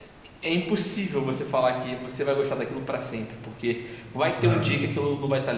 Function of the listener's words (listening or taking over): listening